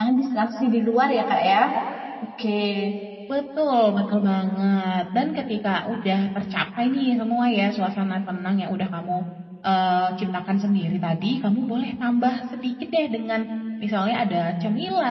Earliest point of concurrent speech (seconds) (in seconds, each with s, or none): none